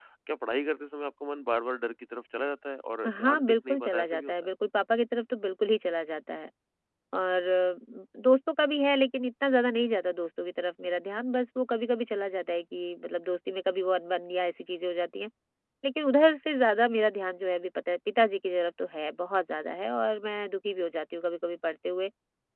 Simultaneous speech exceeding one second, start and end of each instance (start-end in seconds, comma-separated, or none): 3.1-4.3